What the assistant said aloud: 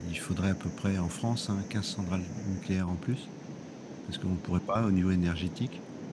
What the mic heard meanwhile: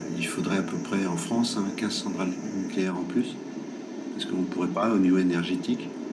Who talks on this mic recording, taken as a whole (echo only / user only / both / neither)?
echo only